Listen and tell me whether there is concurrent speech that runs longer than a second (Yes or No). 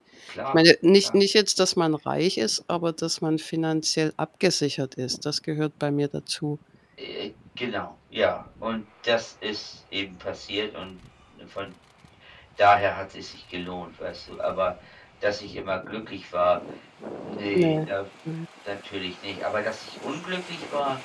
No